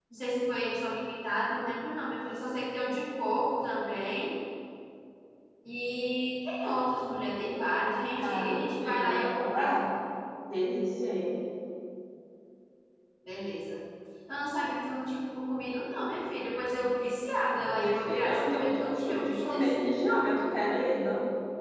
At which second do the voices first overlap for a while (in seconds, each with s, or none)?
8.2 s